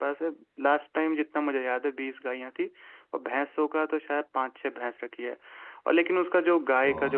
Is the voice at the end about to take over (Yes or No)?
No